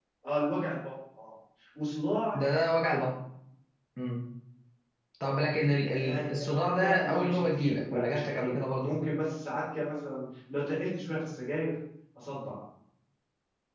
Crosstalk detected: Yes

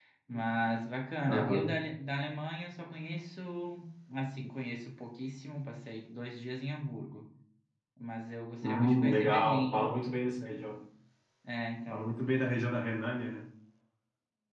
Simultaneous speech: Yes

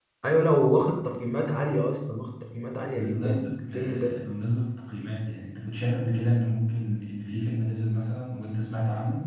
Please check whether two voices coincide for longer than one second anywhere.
Yes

